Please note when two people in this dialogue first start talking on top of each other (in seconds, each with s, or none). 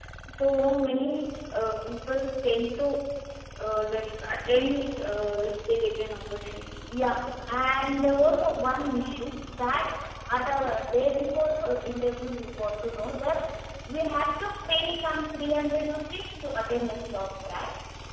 none